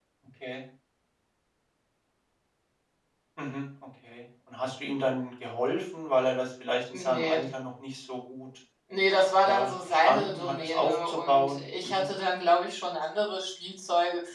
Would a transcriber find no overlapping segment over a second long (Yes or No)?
No